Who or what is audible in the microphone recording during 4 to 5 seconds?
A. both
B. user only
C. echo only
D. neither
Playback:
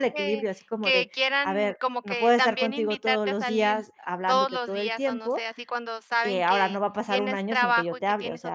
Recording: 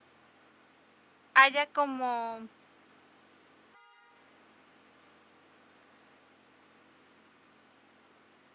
D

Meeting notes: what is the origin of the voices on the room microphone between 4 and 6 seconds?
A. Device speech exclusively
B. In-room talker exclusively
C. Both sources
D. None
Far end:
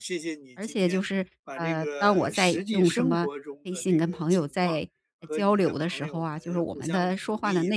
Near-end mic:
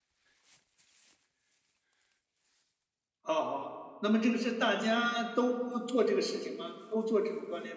B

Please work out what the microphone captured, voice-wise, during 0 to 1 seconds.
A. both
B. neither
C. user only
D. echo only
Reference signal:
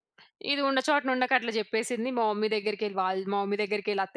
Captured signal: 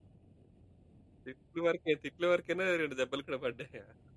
B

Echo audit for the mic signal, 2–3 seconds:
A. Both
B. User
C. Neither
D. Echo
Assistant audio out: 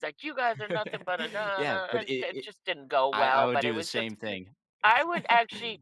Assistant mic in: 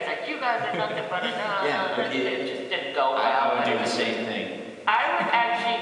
D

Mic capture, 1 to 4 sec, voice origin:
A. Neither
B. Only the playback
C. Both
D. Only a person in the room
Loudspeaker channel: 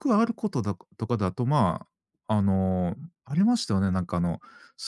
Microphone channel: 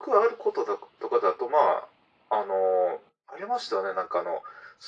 B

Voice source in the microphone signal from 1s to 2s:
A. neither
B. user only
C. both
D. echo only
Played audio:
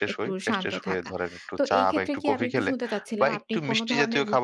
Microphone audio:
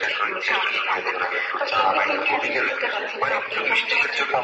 D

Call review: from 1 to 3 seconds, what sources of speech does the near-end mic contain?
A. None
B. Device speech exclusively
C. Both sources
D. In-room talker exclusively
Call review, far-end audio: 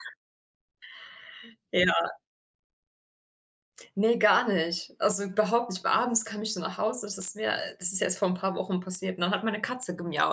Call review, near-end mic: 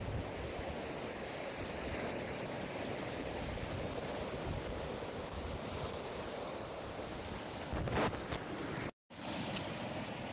A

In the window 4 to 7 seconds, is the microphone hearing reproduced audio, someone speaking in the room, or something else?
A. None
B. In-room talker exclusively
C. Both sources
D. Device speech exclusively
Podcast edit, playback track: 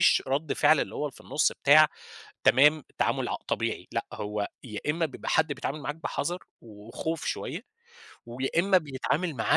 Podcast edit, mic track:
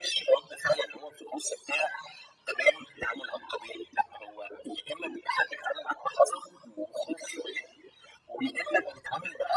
D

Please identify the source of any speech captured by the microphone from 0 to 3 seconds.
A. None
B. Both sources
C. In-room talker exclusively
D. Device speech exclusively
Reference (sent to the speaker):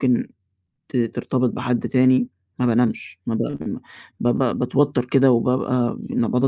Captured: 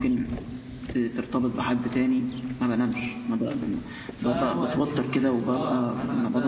D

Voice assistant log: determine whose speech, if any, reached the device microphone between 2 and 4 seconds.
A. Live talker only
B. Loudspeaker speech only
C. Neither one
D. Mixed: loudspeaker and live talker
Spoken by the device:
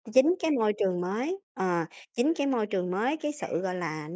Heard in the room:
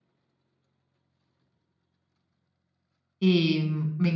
A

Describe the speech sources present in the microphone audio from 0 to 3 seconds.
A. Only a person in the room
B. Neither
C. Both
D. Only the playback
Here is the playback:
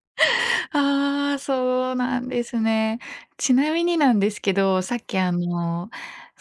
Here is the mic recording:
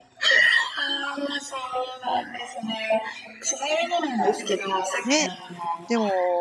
D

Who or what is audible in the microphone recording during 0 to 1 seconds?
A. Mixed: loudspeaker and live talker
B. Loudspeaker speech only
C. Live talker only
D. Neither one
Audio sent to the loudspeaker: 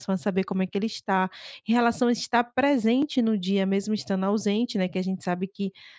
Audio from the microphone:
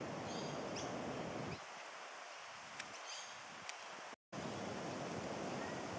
D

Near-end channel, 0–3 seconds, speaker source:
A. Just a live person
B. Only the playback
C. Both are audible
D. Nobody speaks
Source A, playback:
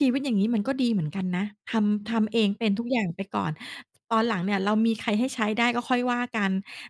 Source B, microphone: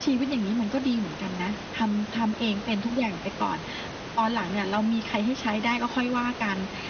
B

